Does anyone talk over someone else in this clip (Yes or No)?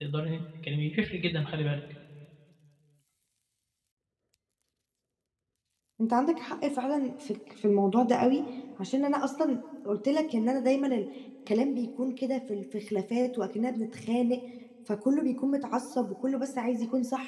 No